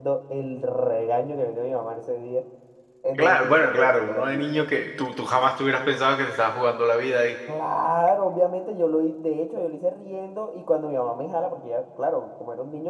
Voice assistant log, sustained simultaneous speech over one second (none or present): present